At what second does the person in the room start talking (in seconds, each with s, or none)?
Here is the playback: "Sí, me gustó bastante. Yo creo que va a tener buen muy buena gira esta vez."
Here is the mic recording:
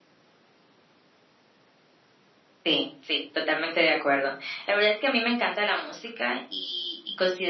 2.6 s